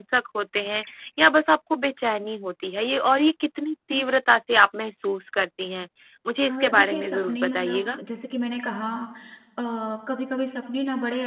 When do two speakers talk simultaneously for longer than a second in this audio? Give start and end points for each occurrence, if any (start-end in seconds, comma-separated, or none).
6.5-8.0